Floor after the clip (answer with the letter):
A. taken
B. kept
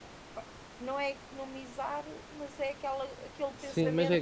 A